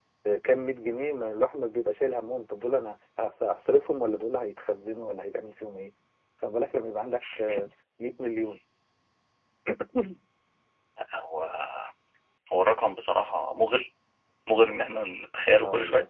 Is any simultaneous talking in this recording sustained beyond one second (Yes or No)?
No